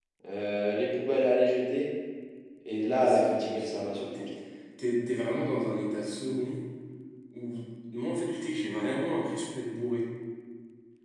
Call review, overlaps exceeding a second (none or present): present